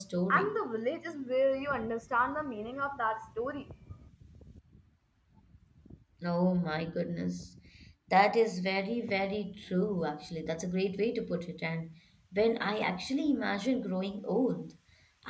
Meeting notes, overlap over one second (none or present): none